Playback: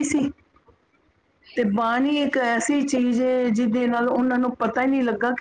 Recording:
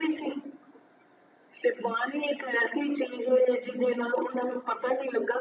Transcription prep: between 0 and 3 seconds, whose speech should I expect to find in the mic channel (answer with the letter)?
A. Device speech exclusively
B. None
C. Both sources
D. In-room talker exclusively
A